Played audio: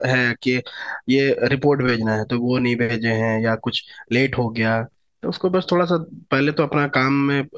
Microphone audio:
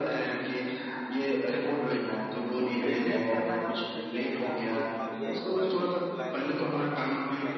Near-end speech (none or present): present